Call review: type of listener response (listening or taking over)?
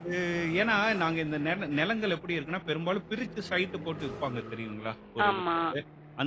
listening